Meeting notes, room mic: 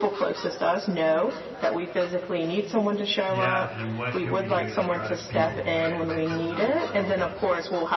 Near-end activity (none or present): present